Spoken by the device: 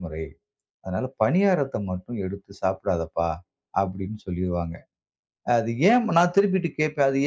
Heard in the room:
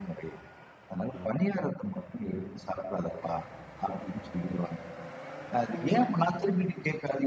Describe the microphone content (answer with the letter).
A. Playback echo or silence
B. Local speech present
B